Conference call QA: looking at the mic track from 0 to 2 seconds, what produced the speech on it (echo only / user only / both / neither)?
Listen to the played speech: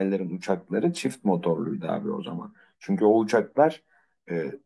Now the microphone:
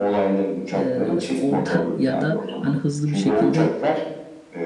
both